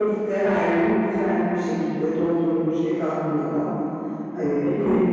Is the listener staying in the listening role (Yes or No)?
No